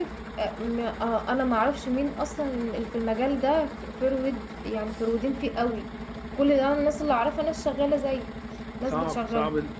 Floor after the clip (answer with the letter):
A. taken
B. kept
A